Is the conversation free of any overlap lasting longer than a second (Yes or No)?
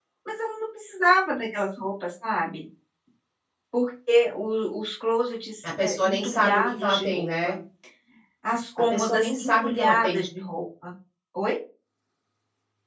No